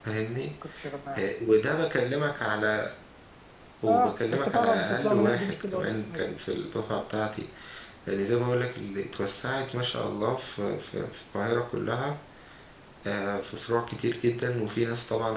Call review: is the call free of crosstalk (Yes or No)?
No